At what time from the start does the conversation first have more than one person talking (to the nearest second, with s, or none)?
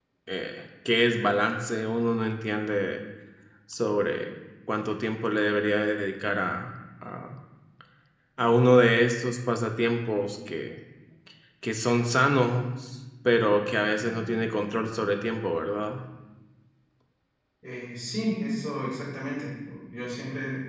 none